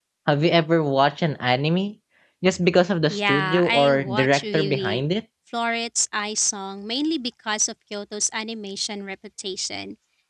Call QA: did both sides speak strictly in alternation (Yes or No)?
No